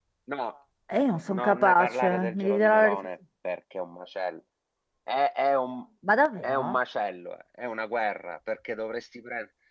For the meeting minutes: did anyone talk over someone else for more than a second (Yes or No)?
Yes